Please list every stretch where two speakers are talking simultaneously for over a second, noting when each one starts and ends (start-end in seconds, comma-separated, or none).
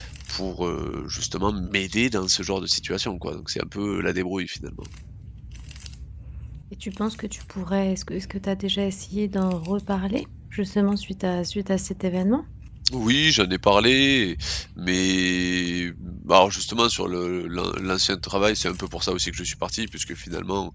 none